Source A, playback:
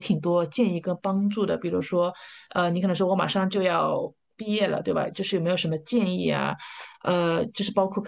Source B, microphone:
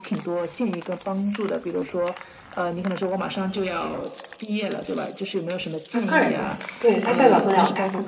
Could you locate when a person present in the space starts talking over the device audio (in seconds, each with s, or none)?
5.9 s